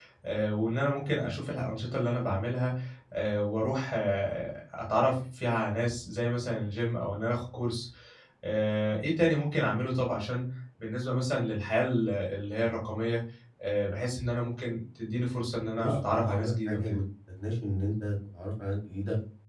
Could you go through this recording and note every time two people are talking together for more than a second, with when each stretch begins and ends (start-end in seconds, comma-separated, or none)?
15.8-17.0